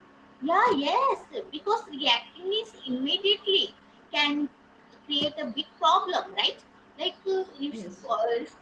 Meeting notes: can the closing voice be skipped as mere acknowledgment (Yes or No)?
Yes